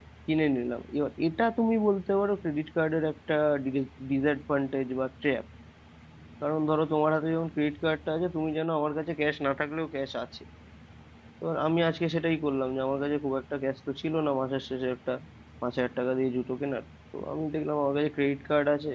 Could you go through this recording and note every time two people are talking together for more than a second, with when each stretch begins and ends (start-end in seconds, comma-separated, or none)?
none